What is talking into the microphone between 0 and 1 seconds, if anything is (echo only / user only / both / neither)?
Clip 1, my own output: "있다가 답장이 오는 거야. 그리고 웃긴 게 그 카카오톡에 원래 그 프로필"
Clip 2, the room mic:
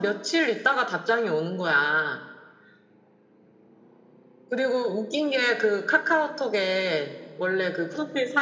echo only